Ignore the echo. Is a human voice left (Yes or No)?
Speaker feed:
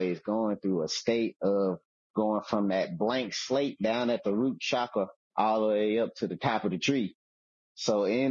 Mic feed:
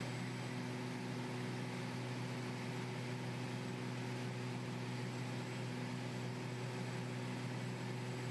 No